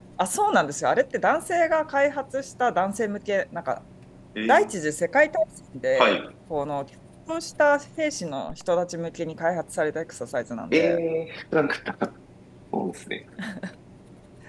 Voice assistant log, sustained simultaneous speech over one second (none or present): none